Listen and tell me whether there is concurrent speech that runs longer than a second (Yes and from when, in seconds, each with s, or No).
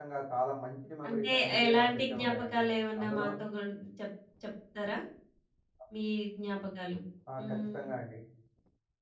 Yes, from 1.1 s